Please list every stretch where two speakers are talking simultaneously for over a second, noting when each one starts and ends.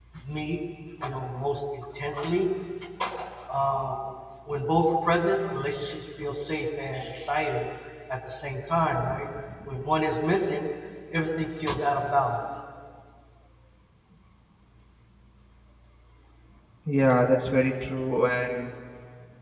none

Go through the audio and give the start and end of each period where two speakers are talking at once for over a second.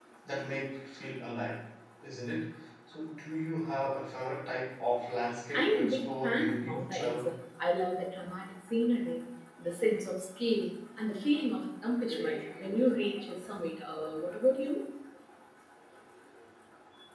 5.5-7.3

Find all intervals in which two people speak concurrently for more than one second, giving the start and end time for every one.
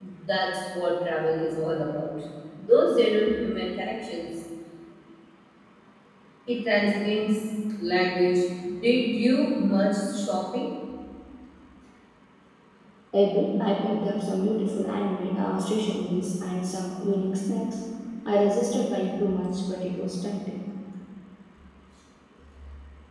none

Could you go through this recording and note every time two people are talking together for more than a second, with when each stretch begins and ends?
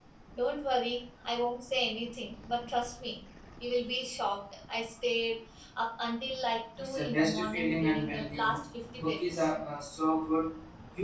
6.8-8.6

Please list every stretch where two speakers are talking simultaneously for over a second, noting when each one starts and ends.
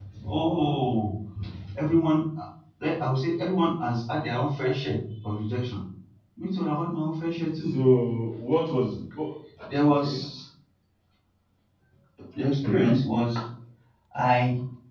none

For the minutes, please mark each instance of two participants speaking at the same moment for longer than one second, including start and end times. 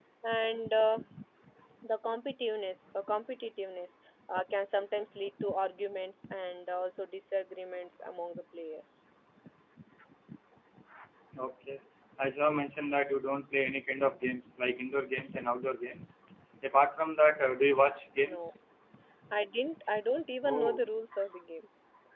none

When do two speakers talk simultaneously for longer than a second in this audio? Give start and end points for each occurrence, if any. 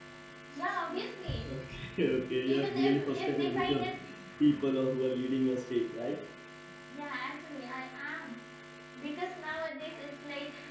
2.4-3.8

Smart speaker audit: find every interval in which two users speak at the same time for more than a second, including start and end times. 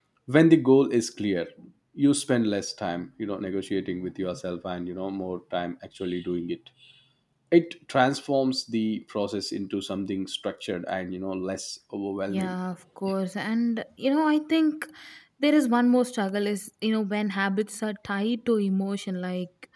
none

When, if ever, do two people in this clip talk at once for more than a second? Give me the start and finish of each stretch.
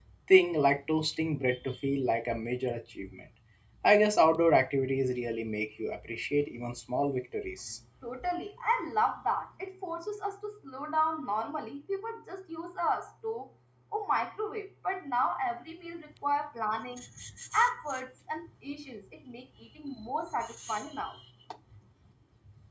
none

